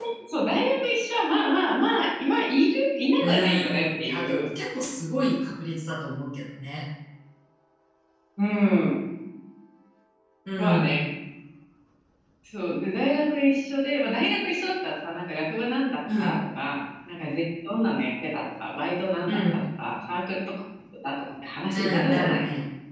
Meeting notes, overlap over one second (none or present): present